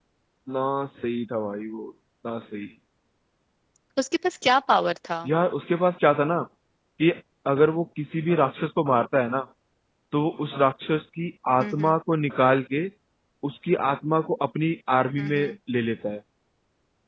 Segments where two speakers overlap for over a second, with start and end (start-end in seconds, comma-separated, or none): none